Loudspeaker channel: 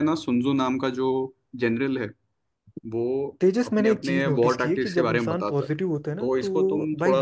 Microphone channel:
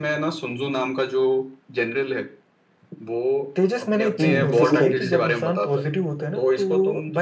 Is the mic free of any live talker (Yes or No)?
No